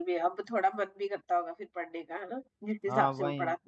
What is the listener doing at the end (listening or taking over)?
taking over